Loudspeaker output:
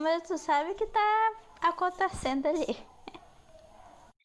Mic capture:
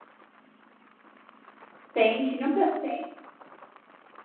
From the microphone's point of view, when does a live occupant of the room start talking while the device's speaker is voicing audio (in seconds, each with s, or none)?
1.9 s